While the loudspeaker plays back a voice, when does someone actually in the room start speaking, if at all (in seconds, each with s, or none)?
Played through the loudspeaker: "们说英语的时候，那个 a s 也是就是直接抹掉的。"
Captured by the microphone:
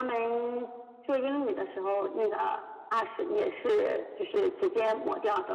none